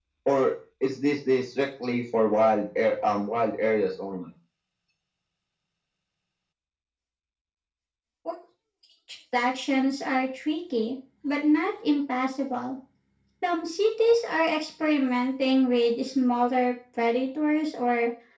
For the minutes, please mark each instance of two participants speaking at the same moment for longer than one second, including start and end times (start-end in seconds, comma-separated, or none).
none